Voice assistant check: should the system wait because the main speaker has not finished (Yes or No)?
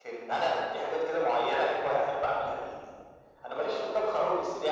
Yes